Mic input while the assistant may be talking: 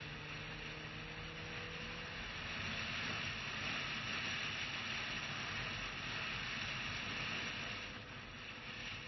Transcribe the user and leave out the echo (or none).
none